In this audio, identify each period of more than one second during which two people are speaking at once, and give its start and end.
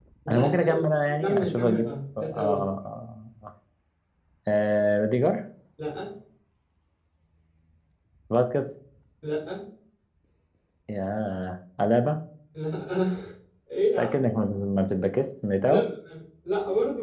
1.2-2.7

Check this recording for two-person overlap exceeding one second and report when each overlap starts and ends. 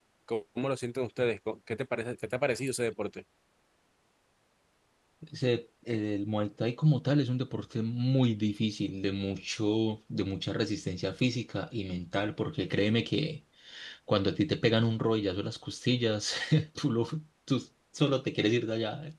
none

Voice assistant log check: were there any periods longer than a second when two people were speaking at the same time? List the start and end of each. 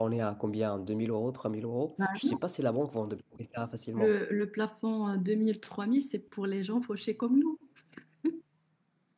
none

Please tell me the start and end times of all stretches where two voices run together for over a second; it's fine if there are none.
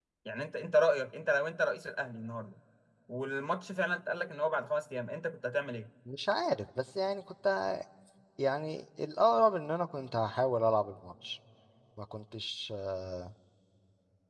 none

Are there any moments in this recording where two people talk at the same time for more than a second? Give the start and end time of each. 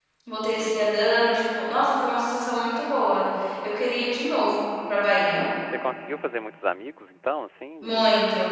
none

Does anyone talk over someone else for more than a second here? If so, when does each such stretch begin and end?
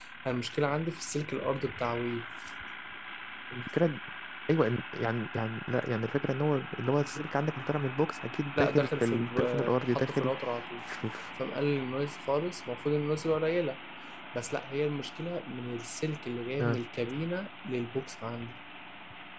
8.6-10.3

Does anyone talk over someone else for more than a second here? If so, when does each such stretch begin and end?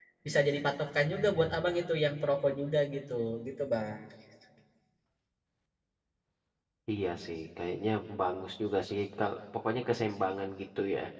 none

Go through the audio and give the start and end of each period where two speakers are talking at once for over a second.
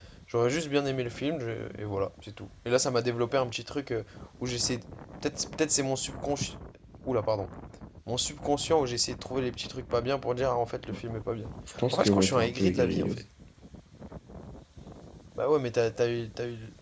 11.9-13.1

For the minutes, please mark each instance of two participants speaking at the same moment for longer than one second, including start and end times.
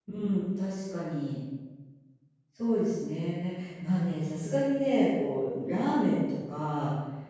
none

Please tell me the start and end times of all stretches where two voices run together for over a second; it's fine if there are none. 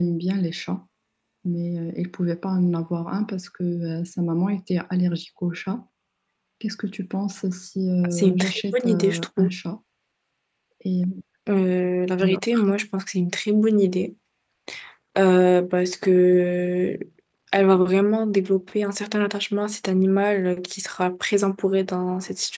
8.1-9.5

